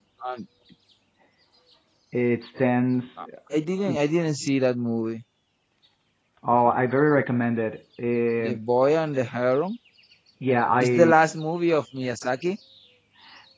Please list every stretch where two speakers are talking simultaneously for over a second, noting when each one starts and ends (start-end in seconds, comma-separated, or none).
none